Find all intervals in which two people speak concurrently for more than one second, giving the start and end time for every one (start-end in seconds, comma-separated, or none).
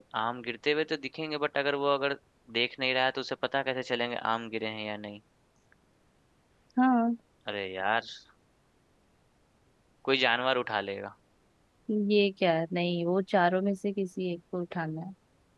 none